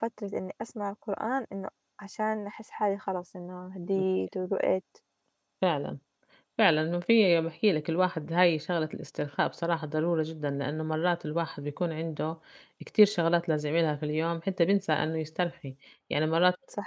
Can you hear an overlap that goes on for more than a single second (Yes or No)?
No